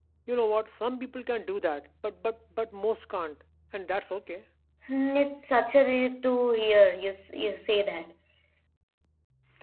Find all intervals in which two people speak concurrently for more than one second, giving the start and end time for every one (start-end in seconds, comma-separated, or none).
none